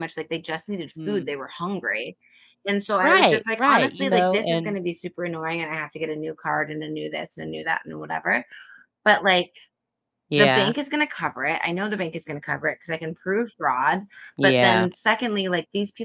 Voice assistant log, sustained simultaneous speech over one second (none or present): present